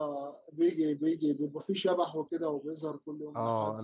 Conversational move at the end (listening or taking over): taking over